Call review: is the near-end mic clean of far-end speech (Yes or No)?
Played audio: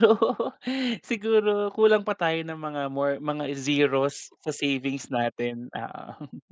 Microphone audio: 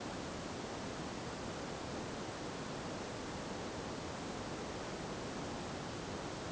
Yes